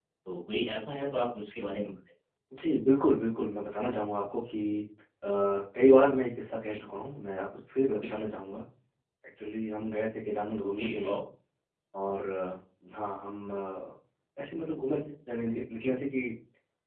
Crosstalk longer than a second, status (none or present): none